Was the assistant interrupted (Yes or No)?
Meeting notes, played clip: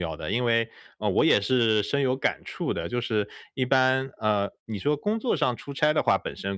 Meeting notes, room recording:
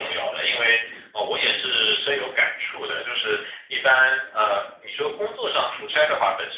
No